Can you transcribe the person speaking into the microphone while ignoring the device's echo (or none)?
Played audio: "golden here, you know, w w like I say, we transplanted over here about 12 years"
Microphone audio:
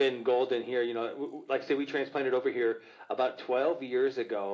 none